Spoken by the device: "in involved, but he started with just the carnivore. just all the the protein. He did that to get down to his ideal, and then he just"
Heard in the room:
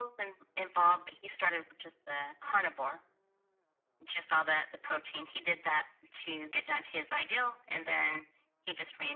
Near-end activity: none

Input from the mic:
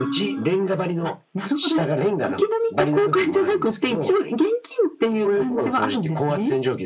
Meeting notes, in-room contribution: none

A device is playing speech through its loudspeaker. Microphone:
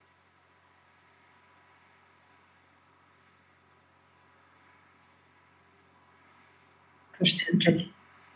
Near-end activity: present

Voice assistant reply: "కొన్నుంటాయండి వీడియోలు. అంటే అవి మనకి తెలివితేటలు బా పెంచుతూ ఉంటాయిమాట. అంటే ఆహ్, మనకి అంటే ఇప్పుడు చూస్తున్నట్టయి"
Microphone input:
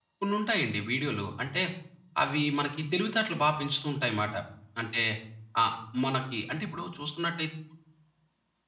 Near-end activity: none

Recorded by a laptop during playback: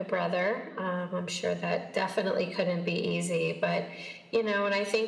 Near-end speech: none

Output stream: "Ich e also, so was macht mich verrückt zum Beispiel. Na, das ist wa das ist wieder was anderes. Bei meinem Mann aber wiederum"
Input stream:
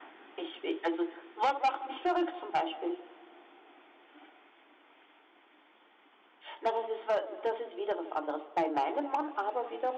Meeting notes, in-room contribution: none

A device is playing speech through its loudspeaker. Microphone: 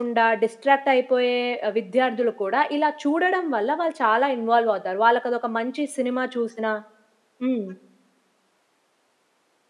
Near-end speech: present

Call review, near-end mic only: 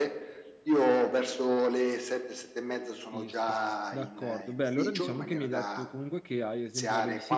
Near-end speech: present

